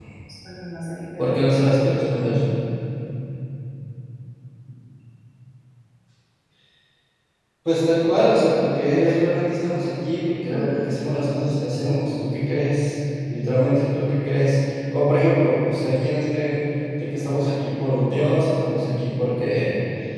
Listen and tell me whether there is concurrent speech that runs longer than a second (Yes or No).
No